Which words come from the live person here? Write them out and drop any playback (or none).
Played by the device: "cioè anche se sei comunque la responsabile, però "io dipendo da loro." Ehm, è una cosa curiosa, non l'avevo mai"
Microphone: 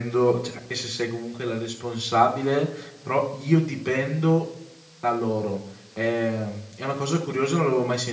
none